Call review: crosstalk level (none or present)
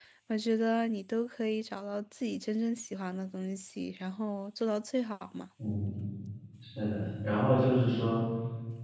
none